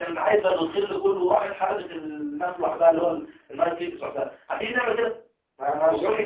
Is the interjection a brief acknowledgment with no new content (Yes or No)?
No